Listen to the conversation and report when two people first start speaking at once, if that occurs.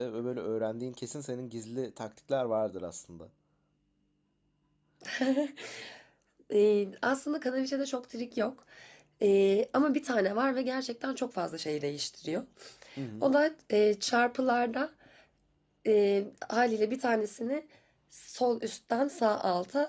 none

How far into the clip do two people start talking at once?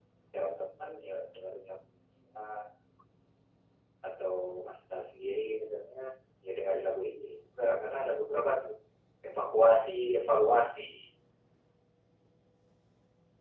none

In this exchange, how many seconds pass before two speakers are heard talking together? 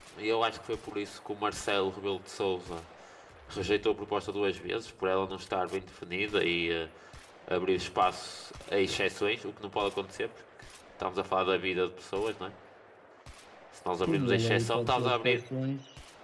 14.1 s

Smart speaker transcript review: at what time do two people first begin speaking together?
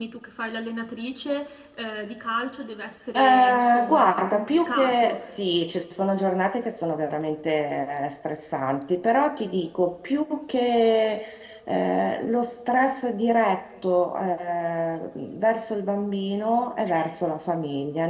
3.2 s

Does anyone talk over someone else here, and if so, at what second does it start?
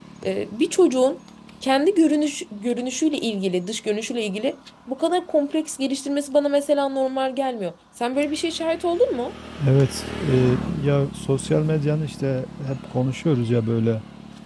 none

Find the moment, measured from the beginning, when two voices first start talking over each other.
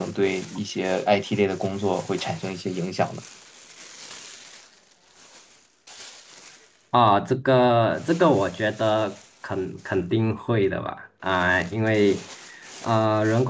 none

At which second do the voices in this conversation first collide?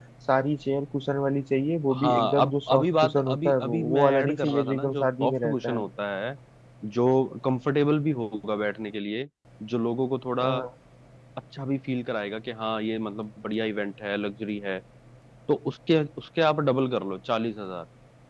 1.9 s

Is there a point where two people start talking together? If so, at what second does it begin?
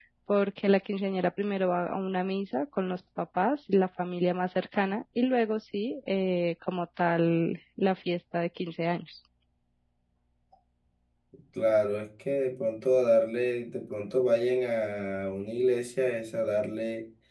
none

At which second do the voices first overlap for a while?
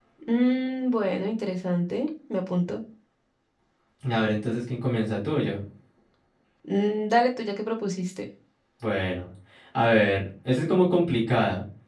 none

